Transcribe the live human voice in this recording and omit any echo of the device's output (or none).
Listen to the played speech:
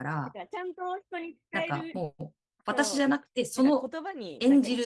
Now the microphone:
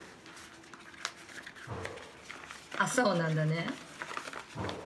あ、そうなんだね。